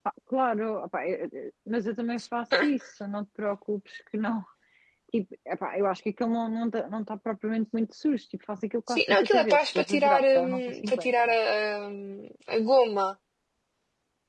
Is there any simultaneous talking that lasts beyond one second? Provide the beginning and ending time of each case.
8.9-11.1

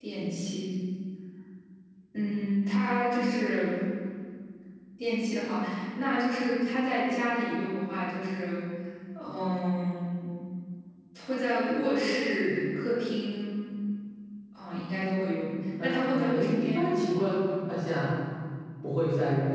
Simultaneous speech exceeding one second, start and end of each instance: 15.8-17.1

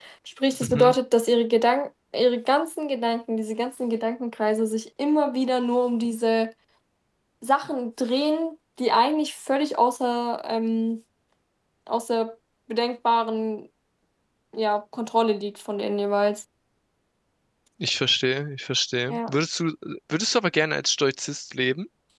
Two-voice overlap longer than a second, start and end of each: none

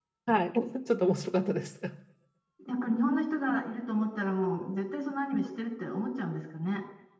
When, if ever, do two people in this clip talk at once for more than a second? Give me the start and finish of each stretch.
none

